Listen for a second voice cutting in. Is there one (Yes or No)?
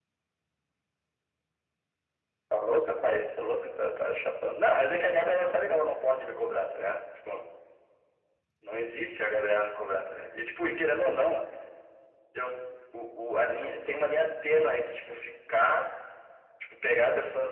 No